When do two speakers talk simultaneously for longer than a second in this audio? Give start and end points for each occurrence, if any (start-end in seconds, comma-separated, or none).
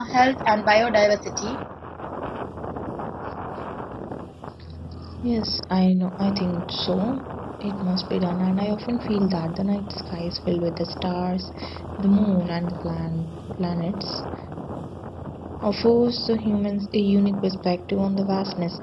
none